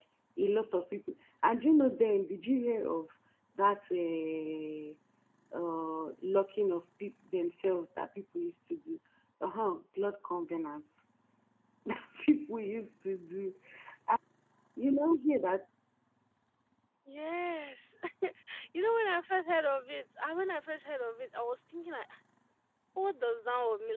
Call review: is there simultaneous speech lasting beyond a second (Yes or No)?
No